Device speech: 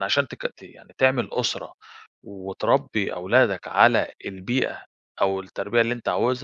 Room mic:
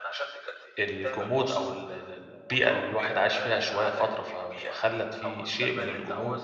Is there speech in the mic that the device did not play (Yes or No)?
Yes